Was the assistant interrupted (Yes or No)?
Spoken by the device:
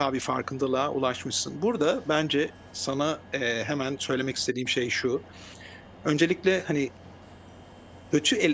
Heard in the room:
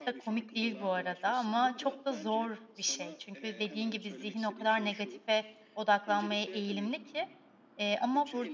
Yes